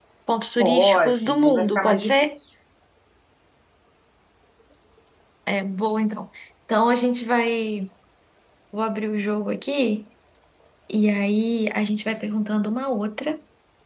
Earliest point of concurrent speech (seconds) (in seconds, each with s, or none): 0.6 s